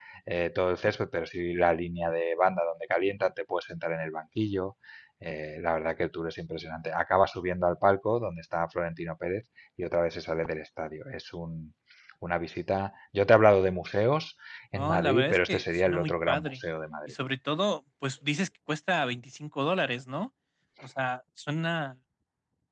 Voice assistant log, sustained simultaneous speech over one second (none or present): present